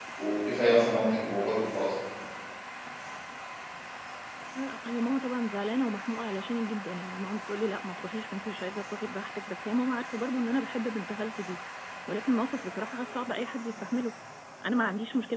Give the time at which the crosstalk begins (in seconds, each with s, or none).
none